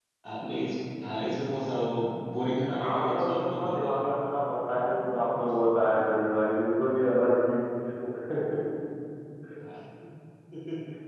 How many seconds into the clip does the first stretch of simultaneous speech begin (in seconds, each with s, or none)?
2.7 s